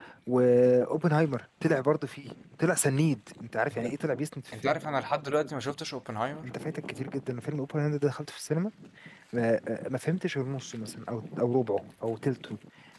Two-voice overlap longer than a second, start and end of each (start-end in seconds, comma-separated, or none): none